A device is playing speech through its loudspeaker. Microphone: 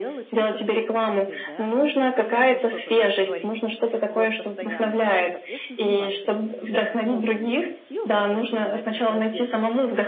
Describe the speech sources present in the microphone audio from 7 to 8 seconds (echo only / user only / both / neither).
both